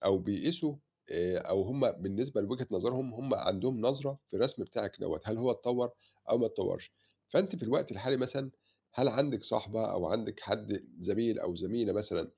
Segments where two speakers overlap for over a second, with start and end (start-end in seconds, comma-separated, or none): none